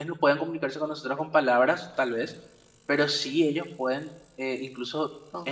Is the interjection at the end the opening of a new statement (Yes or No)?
No